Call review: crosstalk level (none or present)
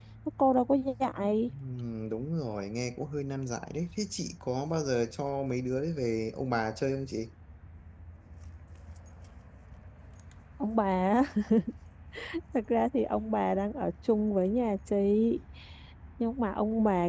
none